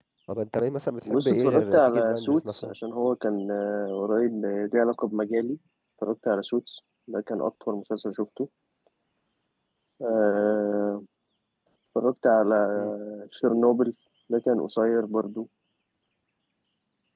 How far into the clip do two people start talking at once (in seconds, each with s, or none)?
1.1 s